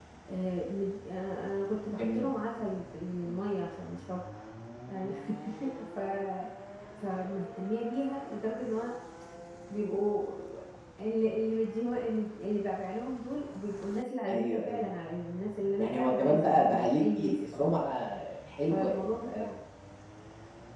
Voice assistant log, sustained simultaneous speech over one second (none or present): present